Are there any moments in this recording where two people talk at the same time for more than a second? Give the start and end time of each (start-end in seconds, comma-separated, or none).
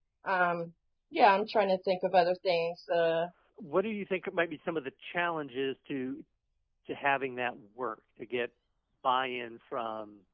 none